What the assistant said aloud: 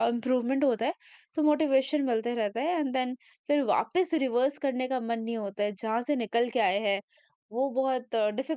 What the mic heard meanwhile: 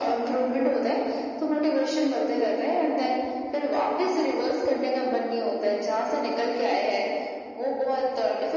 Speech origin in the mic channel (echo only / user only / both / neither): echo only